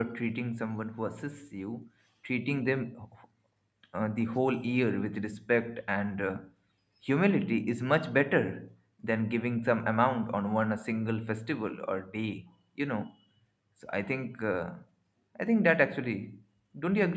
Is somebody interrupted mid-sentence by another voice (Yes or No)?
No